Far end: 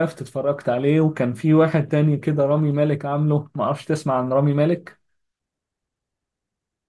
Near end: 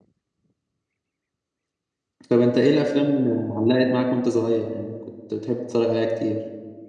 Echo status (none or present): none